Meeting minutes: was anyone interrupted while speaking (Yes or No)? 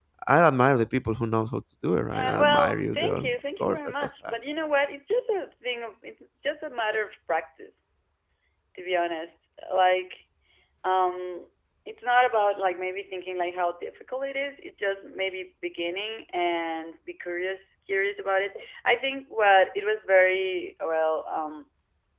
Yes